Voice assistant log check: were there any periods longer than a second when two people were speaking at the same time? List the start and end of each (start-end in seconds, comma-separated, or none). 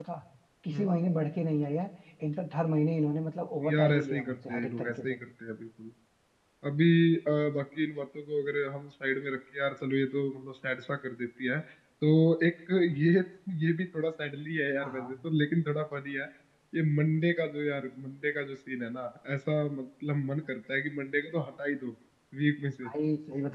3.7-5.2